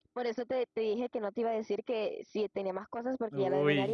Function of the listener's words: taking over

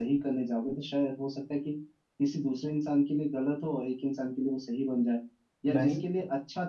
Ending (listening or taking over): listening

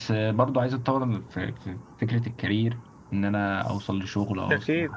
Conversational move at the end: listening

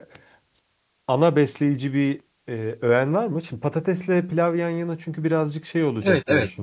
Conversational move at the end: taking over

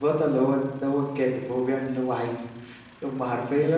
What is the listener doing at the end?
listening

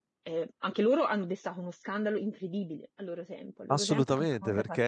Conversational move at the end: taking over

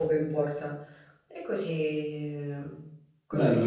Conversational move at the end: taking over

